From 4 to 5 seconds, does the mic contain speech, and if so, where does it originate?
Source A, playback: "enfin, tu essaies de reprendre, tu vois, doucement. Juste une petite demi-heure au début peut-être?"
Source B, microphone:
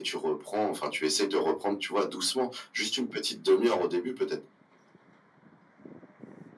echo only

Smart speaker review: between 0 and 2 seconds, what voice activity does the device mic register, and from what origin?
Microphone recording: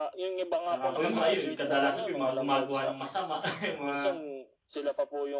both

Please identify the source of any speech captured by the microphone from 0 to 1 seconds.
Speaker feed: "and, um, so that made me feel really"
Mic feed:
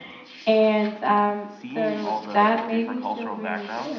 echo only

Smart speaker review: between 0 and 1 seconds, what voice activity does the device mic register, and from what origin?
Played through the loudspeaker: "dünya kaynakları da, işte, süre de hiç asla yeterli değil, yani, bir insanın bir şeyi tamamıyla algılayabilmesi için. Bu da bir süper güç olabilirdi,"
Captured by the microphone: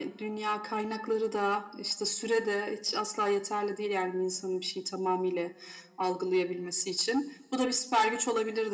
echo only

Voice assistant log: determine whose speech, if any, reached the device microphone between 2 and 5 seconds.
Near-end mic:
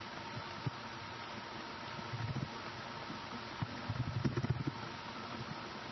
neither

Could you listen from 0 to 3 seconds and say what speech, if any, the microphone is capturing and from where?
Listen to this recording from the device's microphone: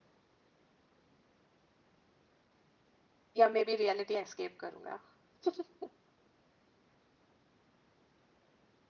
neither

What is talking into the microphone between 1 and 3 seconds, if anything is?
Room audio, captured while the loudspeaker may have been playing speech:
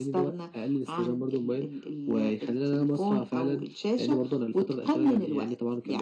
echo only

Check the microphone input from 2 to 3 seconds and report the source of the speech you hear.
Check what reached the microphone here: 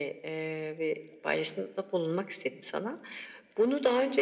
echo only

